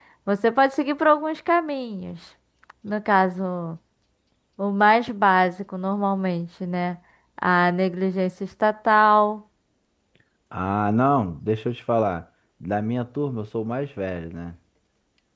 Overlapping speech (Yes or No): No